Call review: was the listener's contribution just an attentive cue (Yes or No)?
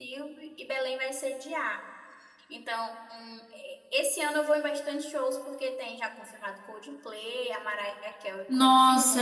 No